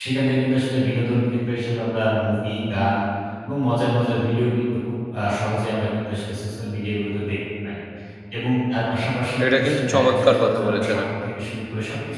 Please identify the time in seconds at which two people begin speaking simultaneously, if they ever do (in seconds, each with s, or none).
9.4 s